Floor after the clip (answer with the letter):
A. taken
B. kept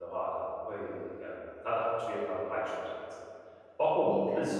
B